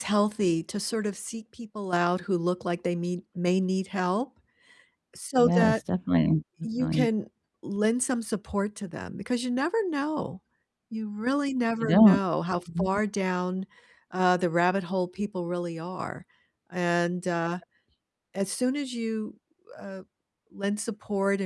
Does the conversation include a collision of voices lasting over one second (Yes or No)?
No